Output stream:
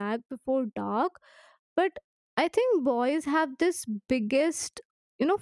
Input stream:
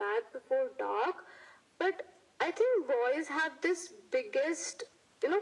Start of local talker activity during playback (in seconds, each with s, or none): none